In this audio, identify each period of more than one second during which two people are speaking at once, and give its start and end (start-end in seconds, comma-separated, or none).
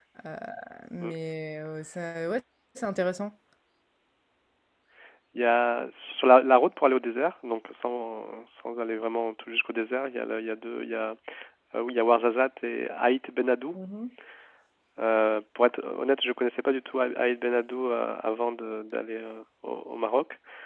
none